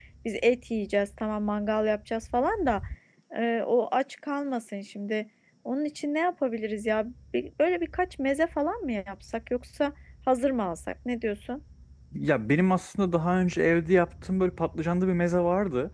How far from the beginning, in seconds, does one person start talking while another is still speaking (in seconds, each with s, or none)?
none